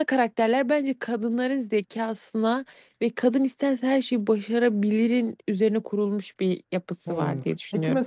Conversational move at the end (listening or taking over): taking over